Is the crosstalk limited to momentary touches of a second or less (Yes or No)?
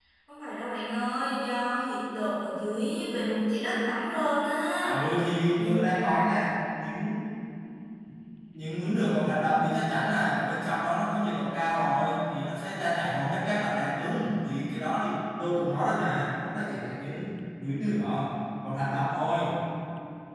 Yes